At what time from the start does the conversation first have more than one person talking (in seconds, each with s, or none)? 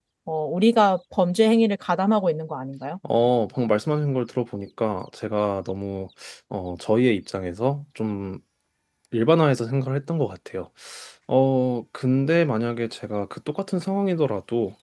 none